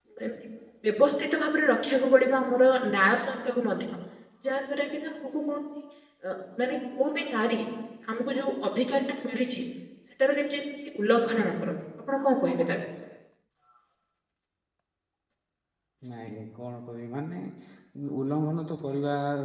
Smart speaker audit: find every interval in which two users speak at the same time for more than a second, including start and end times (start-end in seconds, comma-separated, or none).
none